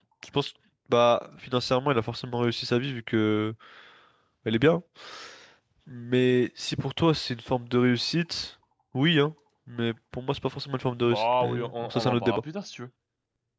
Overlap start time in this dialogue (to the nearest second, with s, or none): 11 s